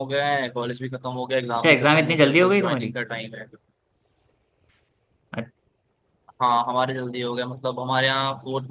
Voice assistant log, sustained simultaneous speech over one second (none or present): present